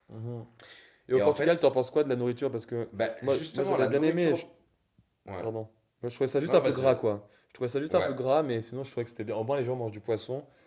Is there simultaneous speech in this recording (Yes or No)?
Yes